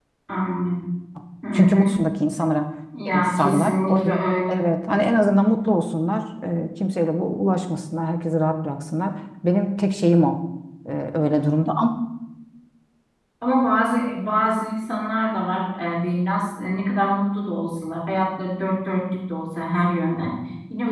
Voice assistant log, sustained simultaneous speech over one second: present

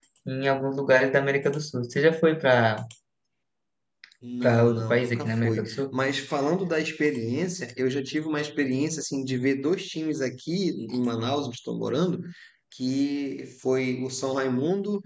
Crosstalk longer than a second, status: present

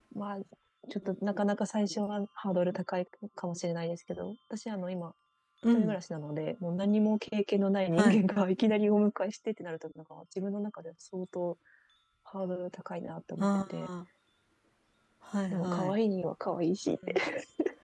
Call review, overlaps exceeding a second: none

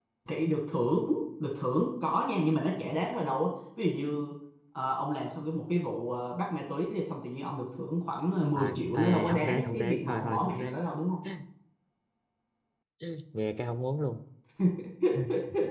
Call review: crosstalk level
present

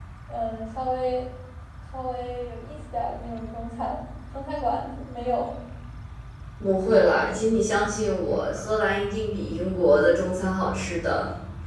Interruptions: none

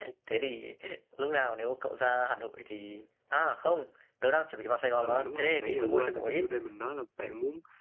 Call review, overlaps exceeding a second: present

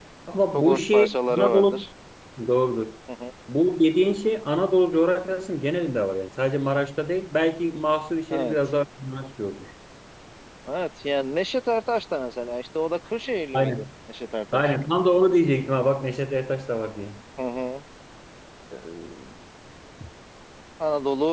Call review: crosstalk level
present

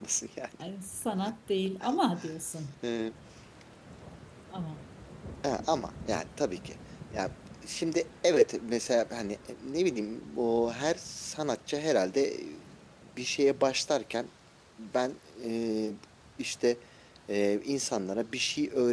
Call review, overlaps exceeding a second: none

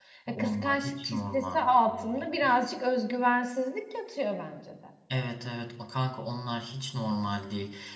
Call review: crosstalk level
present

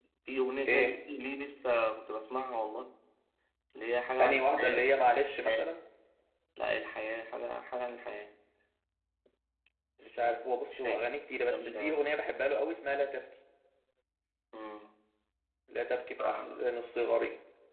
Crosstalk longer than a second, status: present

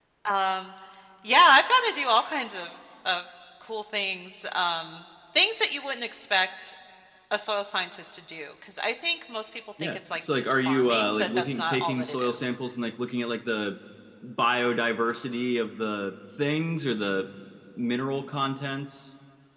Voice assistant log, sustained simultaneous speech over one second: present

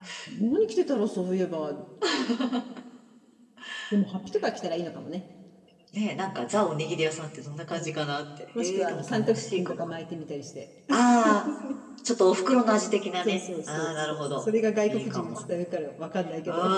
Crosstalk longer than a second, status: present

